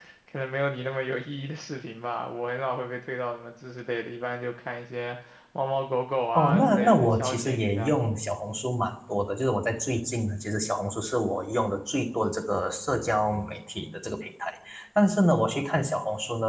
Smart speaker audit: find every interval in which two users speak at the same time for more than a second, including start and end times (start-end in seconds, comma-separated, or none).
6.3-7.9